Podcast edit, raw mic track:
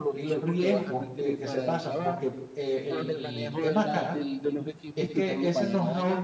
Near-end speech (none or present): present